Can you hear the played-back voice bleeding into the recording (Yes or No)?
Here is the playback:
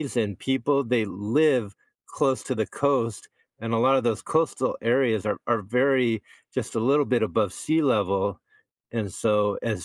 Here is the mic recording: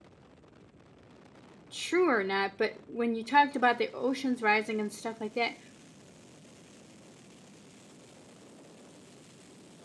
No